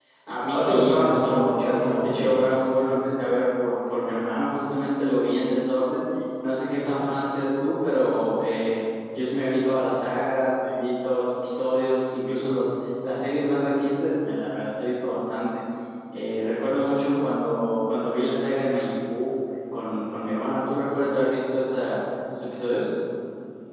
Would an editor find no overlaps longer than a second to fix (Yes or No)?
No